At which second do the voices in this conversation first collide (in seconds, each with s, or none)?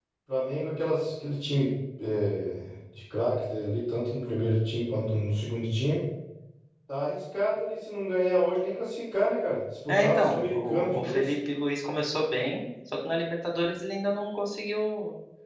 9.9 s